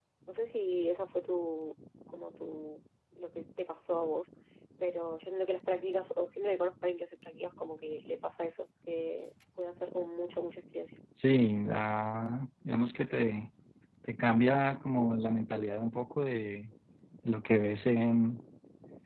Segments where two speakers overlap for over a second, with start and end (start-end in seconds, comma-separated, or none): none